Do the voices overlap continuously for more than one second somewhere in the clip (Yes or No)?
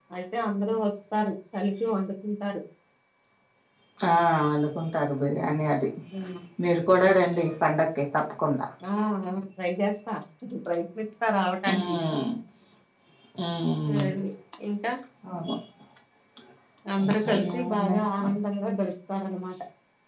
Yes